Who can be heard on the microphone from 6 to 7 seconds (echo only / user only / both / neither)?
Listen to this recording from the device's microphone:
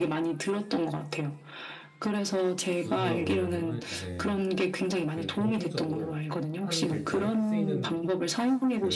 both